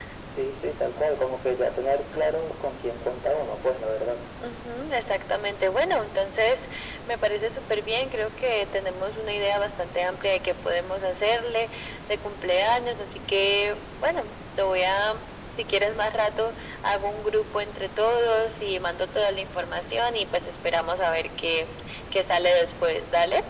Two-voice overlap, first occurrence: none

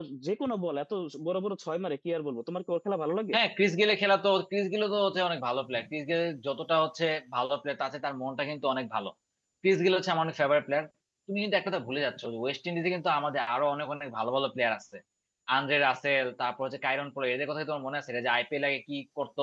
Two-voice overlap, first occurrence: none

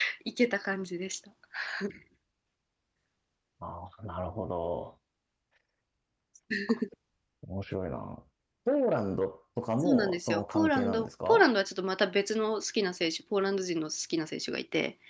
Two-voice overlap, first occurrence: 9.8 s

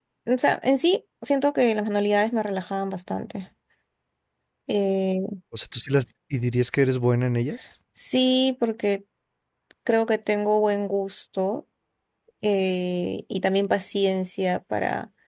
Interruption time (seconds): none

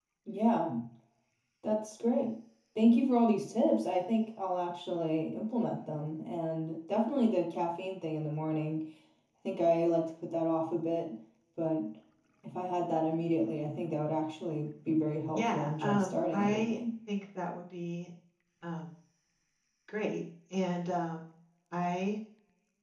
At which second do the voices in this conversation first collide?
15.3 s

